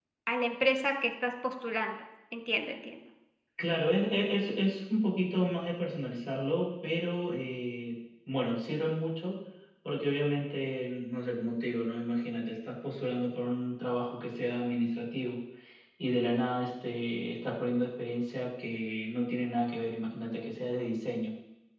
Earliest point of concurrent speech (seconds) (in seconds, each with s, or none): none